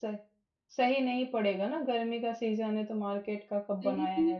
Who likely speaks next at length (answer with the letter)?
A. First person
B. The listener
B